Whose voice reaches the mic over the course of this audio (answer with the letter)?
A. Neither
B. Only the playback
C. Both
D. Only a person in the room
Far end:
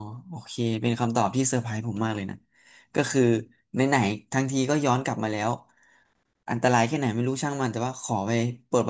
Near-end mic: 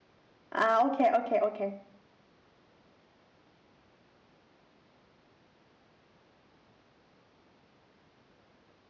D